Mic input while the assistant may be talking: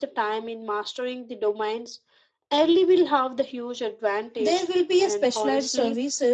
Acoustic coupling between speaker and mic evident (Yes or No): Yes